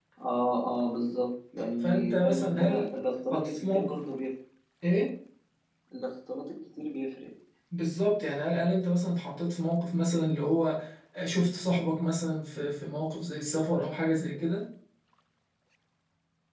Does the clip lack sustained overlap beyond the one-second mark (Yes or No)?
No